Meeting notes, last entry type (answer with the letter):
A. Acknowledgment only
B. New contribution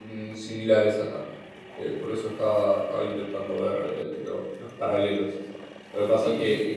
A